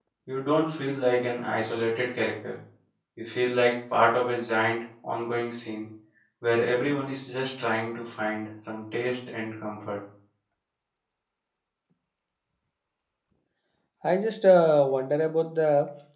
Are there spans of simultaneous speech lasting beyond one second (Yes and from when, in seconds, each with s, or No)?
No